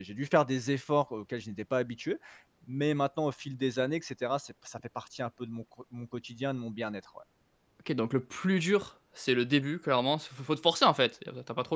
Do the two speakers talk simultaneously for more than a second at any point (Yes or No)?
No